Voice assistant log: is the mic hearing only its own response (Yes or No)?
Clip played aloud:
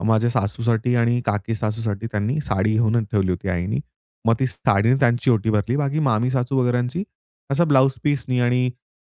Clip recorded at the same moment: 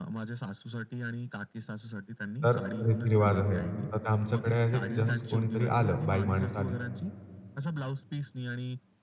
No